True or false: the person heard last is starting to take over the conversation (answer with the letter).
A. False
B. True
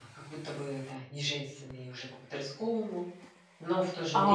B